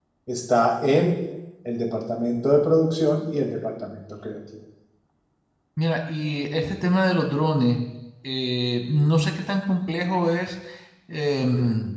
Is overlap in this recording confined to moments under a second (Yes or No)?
Yes